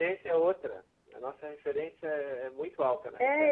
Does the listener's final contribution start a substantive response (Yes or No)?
Yes